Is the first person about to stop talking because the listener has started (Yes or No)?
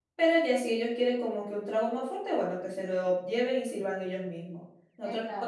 No